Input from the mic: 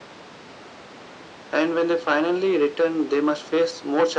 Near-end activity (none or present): none